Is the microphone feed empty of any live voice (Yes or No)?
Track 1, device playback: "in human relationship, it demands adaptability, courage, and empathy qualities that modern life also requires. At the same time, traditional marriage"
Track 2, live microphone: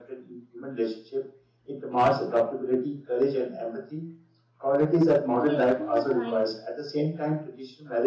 No